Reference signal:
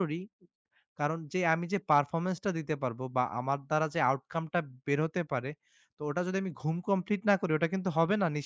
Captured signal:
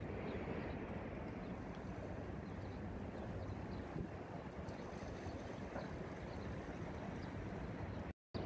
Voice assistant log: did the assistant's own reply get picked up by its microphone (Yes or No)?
No